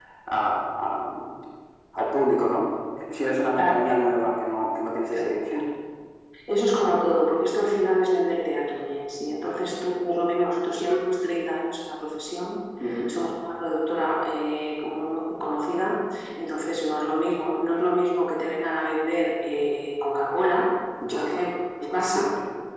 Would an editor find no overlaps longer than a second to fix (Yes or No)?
Yes